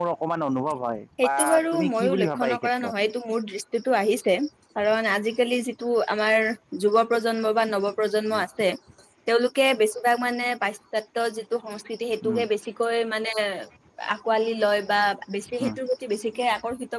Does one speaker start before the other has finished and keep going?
Yes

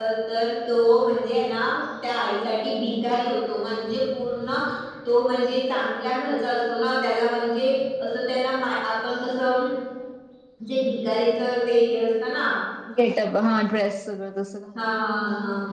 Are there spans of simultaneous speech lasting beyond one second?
No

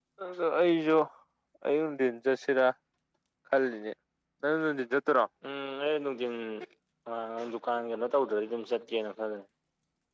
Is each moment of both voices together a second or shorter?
Yes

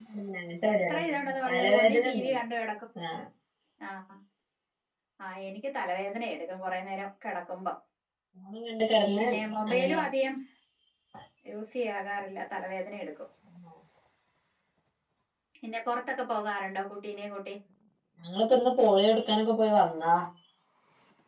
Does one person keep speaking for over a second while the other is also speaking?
Yes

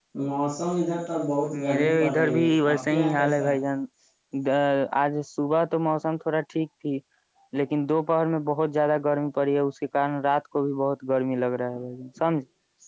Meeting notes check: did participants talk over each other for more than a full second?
Yes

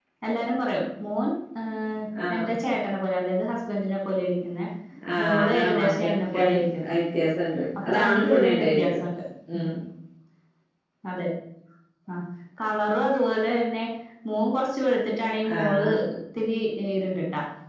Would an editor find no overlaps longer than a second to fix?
No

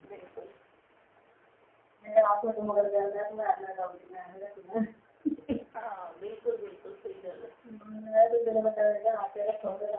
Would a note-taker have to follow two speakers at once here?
No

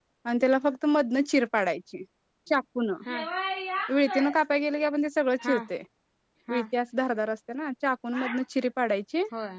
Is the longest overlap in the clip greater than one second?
No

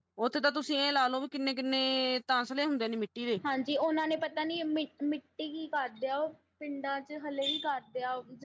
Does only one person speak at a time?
Yes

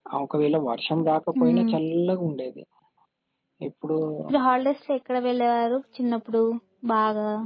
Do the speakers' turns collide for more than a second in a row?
No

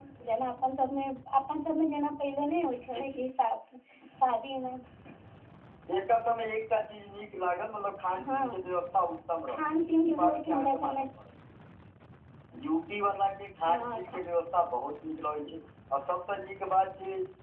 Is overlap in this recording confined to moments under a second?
No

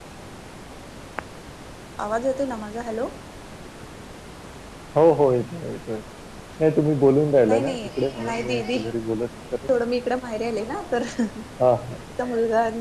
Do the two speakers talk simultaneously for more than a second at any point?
Yes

